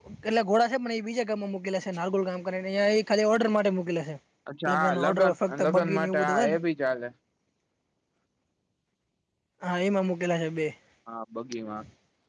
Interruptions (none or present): present